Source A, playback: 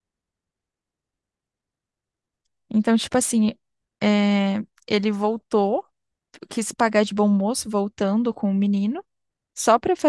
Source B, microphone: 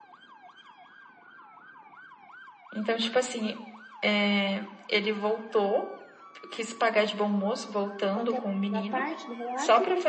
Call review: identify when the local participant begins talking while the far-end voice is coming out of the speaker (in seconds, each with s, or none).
8.1 s